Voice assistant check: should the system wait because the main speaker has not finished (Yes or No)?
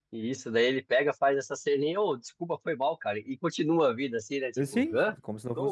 No